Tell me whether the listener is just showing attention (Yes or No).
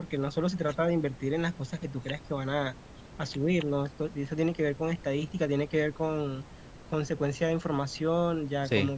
Yes